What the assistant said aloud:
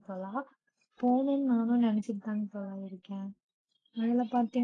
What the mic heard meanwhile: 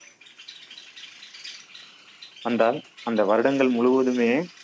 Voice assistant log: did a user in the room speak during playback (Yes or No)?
Yes